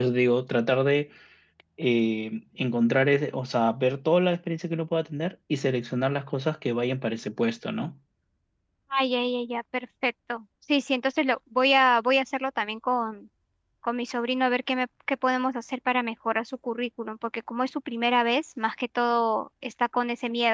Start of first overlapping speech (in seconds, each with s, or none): none